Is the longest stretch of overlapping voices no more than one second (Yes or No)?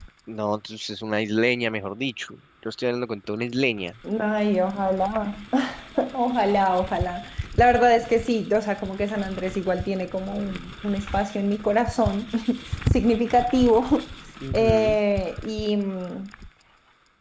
Yes